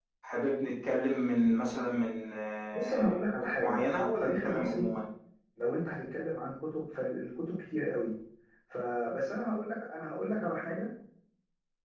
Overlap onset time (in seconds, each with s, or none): 2.7 s